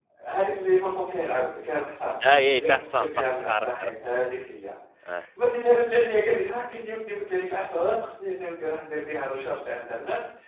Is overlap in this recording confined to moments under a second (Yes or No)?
No